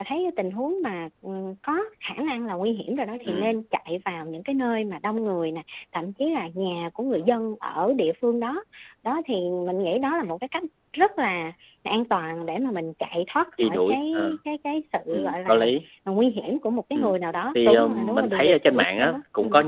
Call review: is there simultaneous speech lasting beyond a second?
Yes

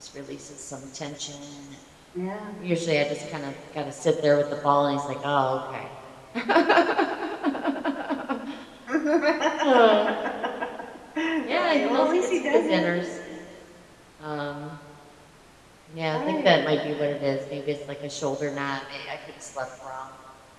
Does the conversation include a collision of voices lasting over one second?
Yes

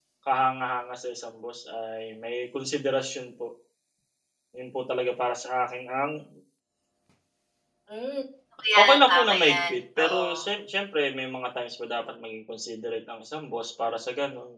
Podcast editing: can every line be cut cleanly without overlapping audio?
No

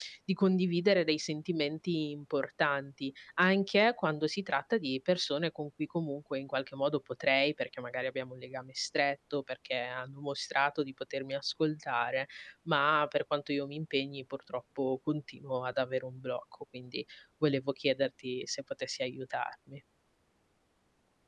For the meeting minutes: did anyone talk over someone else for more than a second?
No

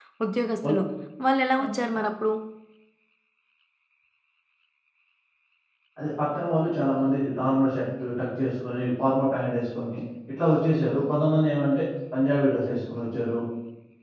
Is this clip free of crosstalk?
Yes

